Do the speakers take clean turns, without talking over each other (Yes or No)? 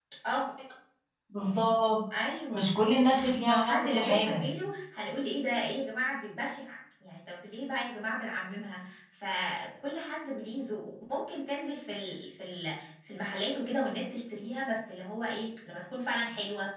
No